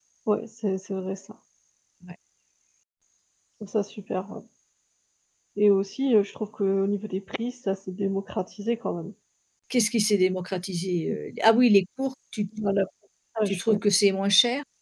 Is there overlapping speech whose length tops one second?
No

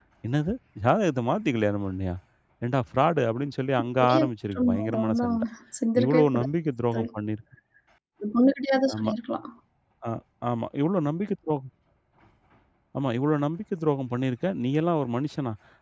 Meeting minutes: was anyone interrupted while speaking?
Yes, from 4.0 s

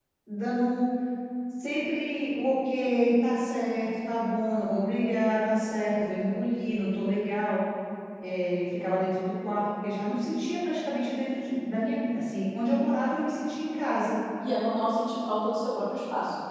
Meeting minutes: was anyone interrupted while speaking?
No

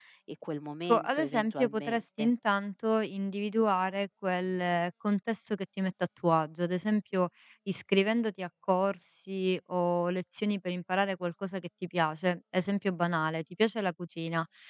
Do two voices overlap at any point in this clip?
Yes, from 0.9 s

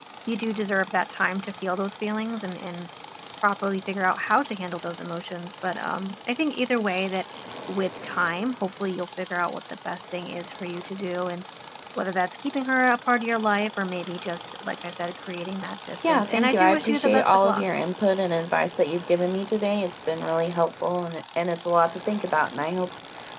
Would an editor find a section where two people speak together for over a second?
Yes, from 16.0 s

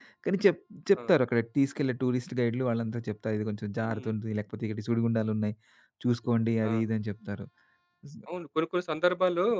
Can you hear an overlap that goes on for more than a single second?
No

